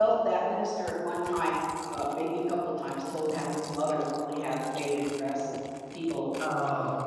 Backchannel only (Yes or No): Yes